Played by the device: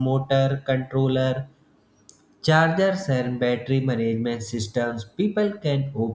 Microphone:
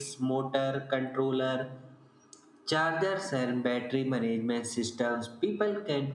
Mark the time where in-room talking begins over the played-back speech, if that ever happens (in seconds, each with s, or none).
none